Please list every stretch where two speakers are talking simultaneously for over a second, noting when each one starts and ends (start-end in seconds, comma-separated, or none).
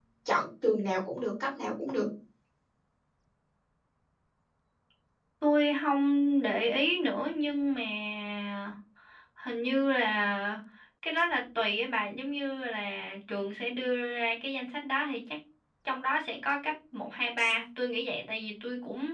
none